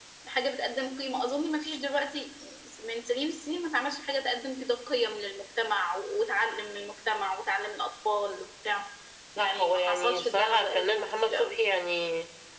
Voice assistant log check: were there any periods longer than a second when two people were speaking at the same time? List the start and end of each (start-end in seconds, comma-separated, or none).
9.4-11.5